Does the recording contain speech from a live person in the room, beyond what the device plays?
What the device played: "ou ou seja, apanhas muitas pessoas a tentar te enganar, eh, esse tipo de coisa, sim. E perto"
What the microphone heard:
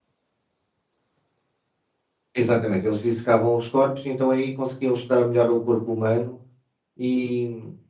Yes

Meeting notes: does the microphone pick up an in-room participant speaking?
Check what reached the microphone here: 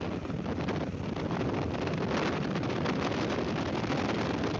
No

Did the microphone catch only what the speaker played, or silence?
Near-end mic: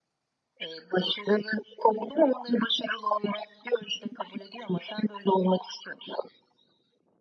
Yes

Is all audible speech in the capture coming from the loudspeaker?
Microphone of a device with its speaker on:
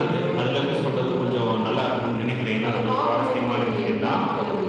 Yes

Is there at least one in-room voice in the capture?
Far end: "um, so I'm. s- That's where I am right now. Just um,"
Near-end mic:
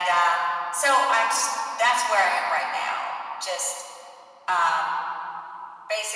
No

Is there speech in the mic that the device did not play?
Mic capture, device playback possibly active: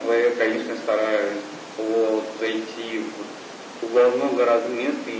No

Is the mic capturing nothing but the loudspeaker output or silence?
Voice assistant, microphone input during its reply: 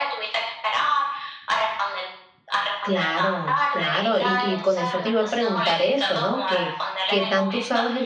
No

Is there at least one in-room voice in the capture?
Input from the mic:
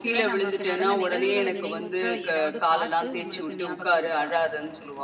No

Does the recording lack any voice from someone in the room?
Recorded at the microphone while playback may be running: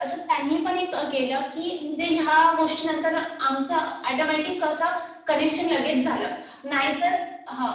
Yes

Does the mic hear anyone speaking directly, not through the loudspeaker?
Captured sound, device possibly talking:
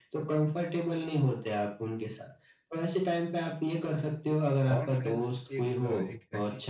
Yes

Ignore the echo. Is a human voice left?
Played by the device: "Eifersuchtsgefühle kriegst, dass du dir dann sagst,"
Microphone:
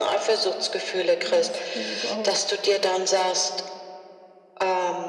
Yes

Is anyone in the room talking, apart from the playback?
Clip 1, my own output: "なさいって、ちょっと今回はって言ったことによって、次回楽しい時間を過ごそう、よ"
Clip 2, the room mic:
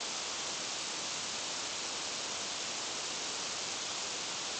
No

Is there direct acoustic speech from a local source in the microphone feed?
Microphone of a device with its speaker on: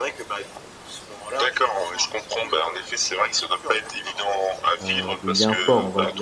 Yes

